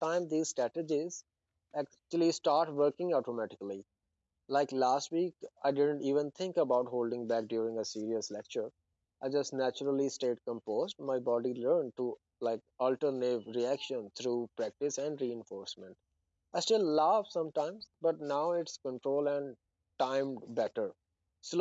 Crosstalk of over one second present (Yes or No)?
No